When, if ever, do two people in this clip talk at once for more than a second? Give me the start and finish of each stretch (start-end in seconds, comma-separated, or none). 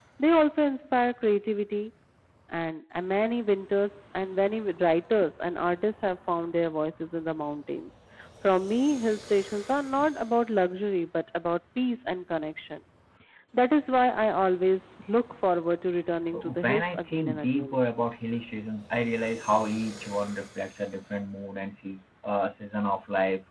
16.3-17.8